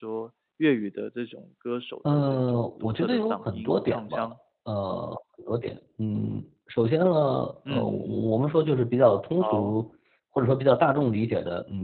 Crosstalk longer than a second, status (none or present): present